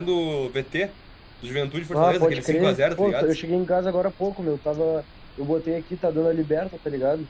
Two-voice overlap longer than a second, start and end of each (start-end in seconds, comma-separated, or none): 1.9-3.3